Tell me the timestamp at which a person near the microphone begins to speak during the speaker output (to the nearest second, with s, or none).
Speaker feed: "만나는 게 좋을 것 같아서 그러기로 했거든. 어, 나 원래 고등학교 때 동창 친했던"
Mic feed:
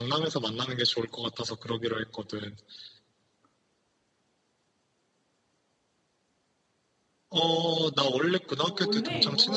9 s